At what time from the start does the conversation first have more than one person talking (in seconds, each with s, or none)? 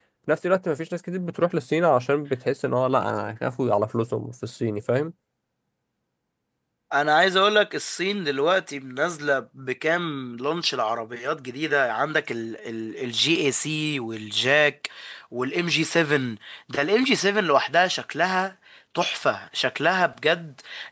none